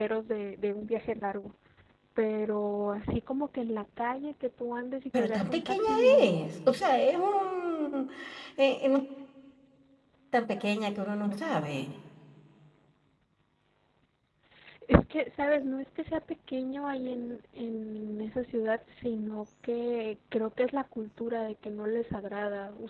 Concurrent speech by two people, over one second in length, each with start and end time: 5.2-6.5

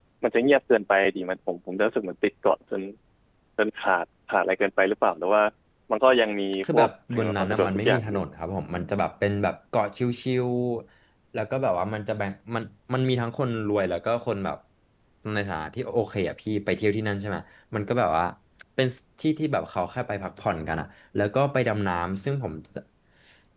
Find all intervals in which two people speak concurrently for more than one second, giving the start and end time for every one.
6.7-8.2

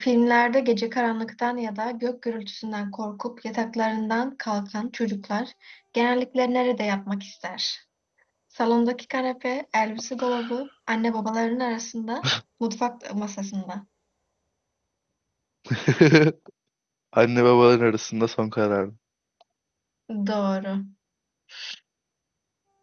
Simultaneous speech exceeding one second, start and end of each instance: none

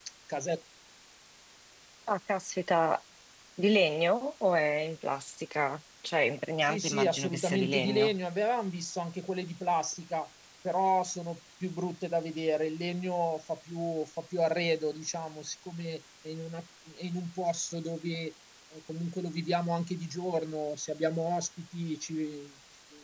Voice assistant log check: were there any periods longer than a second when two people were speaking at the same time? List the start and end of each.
6.6-8.1

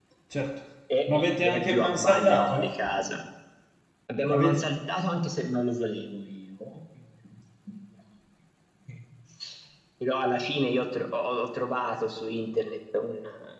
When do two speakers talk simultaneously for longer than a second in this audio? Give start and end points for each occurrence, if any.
1.1-2.7

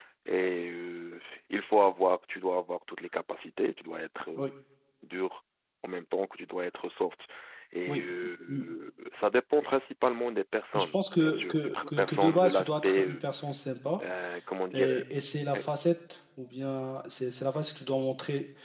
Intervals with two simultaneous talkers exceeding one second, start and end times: 10.7-13.2

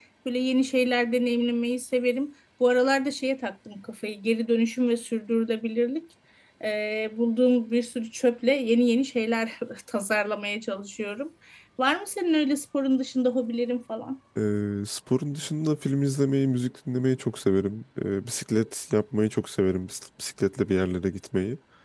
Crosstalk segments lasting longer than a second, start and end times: none

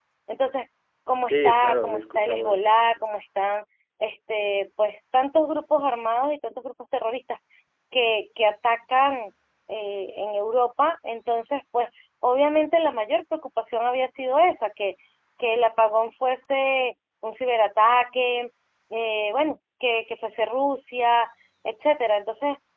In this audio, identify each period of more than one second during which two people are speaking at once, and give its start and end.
1.3-3.0

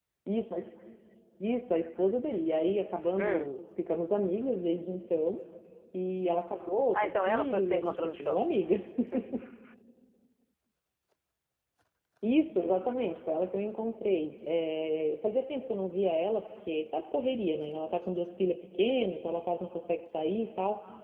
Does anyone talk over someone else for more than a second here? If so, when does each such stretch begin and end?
6.9-8.4

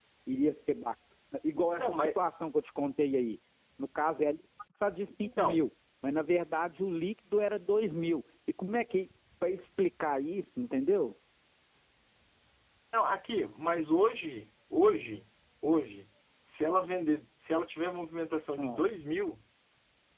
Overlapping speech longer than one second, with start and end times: none

